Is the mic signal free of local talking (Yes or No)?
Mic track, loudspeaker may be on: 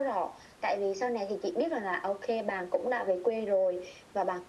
Yes